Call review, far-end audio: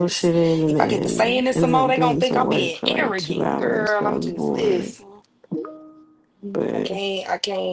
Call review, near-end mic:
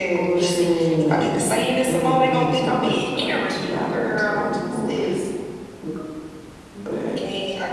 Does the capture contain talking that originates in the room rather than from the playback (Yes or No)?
Yes